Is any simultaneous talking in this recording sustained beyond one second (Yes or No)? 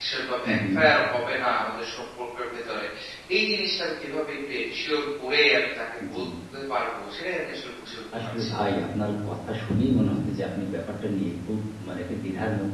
No